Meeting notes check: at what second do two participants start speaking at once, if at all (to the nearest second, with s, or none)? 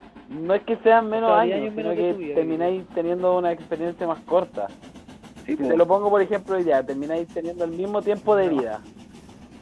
1 s